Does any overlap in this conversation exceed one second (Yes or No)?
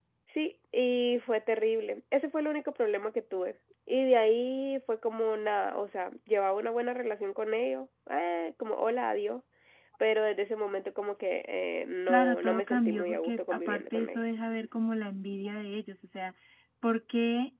Yes